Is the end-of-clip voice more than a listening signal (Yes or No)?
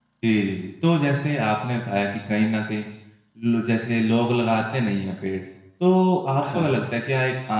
No